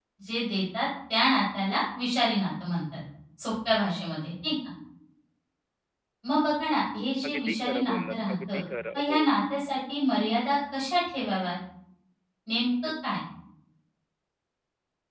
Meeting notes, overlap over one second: present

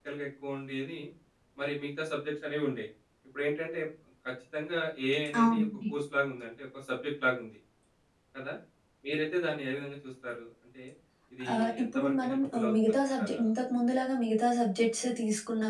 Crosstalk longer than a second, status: present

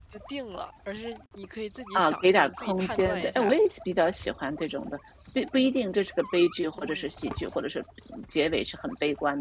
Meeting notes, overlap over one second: present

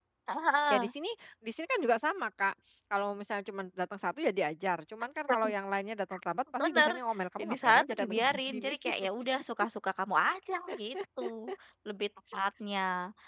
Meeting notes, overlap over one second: present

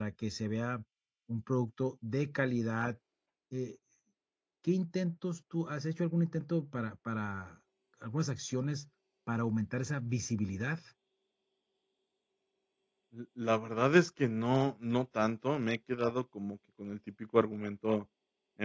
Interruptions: none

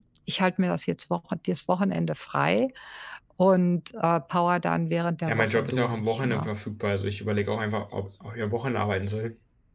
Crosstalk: present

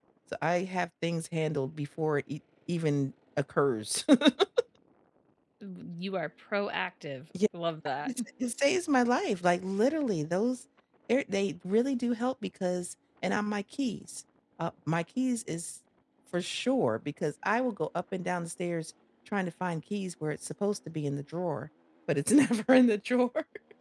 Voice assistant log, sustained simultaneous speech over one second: none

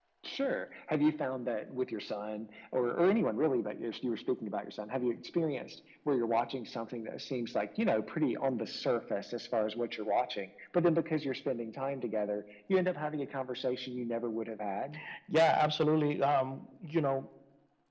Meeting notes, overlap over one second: none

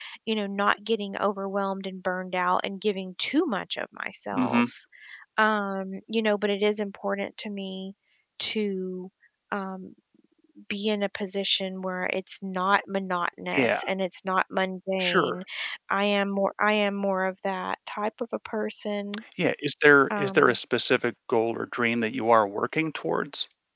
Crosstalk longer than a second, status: none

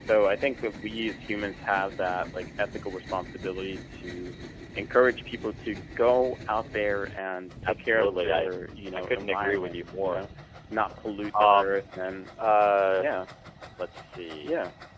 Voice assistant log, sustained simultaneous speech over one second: present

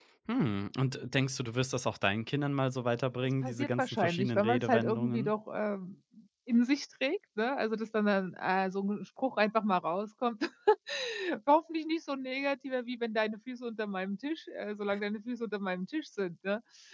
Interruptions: present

